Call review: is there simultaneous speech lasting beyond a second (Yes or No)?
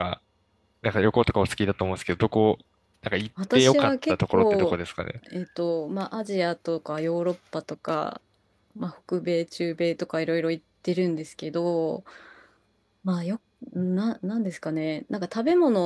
Yes